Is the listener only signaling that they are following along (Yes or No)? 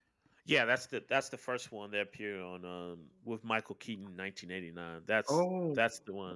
Yes